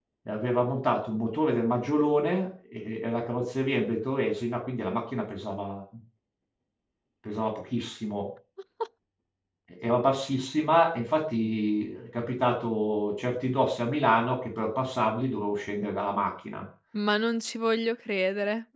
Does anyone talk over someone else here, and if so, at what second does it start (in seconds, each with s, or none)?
none